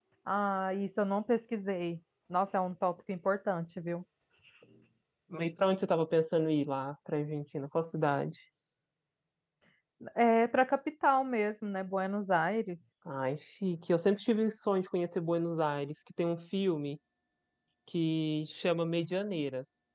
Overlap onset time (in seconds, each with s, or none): none